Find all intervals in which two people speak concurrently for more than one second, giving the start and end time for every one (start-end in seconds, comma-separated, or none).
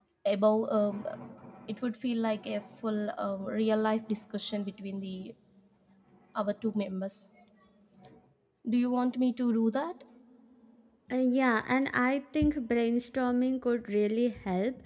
none